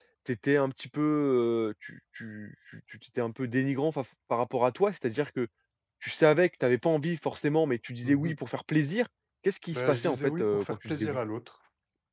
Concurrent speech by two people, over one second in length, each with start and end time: 9.7-11.2

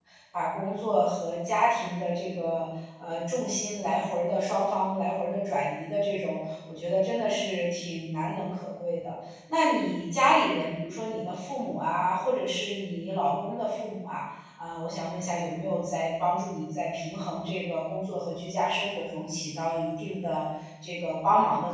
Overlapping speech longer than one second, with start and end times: none

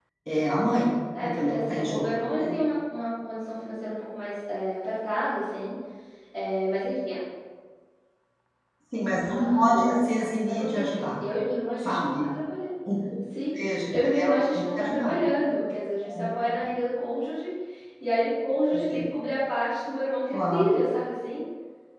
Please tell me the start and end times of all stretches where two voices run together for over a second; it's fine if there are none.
1.2-2.5, 9.2-11.1, 13.9-15.3

